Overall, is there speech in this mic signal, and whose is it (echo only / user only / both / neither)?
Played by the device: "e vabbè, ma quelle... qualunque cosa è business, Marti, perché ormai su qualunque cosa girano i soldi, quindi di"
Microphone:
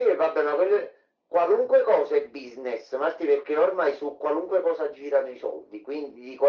echo only